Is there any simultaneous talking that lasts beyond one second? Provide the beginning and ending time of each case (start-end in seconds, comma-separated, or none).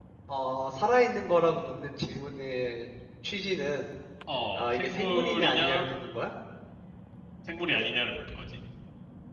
4.6-5.9